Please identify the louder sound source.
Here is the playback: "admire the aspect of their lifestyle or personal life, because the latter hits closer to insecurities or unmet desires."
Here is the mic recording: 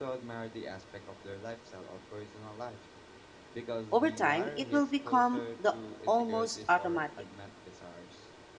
user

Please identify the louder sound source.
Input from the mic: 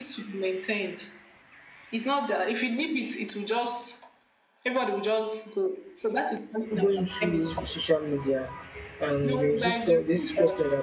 user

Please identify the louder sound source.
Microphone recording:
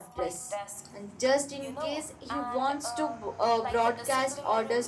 user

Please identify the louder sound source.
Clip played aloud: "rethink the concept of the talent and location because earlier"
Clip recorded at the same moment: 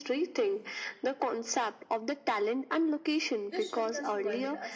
echo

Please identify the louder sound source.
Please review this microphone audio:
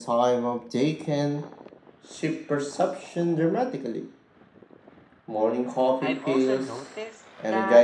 echo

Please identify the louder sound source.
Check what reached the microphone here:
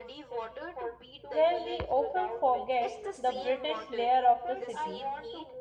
user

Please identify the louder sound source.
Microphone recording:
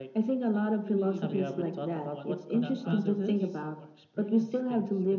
echo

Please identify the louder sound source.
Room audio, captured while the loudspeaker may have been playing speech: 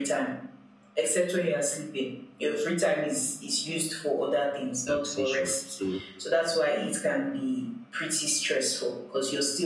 echo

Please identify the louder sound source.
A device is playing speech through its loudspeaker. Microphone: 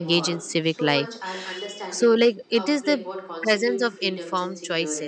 user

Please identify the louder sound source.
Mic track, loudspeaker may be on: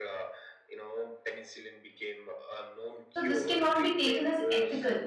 user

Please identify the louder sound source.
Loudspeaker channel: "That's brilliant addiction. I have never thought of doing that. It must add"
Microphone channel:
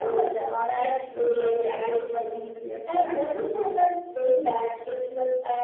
echo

